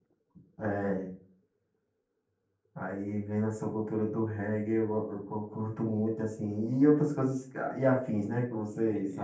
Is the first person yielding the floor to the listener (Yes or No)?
Yes